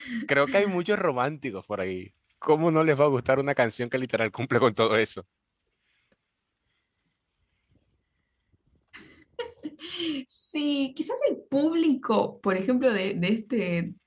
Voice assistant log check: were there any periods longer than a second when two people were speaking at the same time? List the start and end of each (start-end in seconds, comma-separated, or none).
none